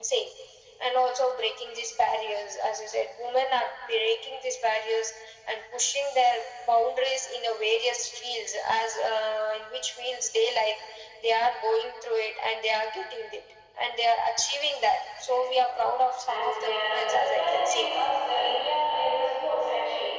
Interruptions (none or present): present